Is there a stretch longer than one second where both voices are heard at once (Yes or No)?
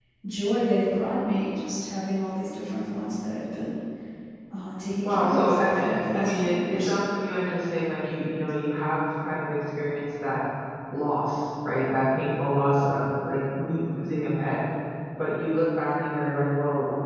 Yes